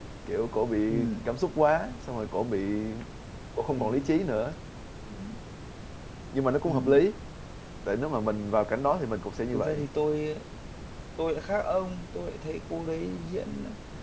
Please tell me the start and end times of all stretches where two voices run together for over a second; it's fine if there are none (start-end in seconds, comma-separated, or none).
none